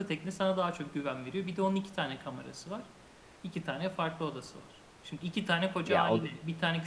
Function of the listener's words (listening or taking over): listening